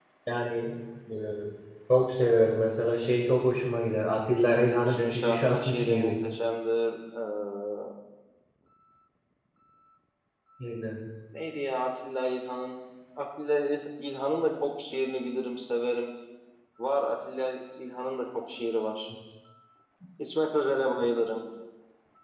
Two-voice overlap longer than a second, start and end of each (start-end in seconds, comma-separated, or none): 4.8-6.1